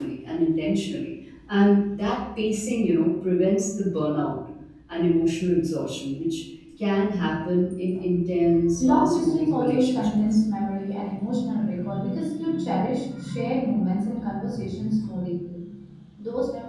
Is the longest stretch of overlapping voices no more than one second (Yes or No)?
No